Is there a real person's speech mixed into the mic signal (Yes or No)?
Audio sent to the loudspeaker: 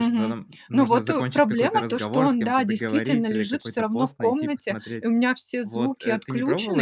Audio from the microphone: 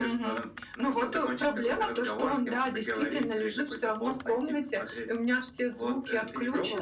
No